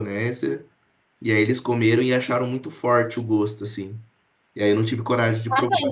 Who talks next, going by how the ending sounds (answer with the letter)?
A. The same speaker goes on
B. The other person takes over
B